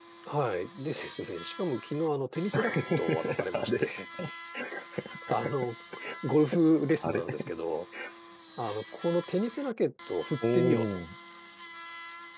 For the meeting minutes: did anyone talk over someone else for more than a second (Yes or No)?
Yes